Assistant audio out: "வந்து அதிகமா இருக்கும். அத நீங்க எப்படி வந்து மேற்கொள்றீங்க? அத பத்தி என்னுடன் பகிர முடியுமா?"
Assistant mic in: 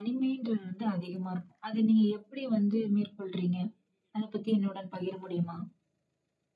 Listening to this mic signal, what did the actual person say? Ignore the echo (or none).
none